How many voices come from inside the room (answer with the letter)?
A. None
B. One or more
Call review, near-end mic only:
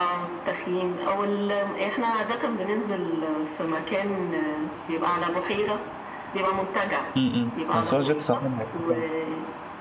B